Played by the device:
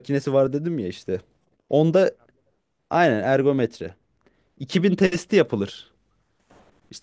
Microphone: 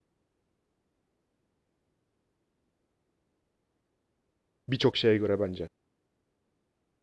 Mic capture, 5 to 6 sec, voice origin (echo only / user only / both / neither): user only